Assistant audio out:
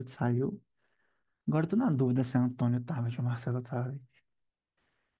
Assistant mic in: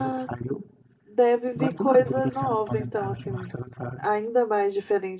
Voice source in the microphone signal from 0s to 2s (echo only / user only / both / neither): both